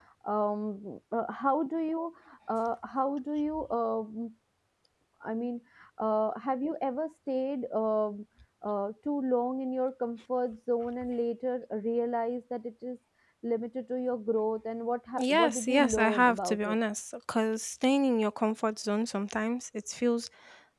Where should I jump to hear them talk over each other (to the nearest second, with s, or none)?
15 s